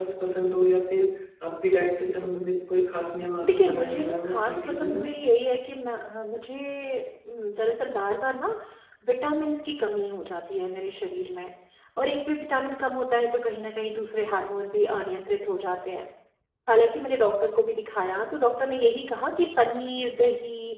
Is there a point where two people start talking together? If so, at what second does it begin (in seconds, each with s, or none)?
3.4 s